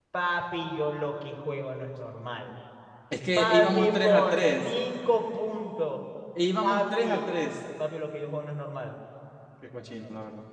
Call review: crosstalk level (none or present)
present